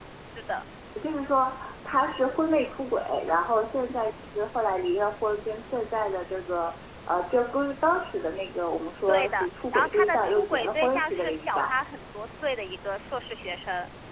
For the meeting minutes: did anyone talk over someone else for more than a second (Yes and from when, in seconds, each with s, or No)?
Yes, from 9.1 s